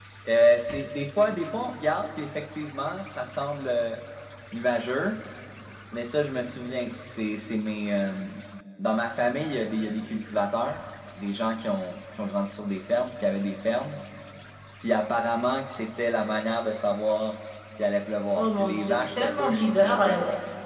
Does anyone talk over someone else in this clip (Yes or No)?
Yes